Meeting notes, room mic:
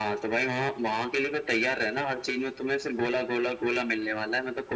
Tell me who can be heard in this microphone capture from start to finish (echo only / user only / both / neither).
echo only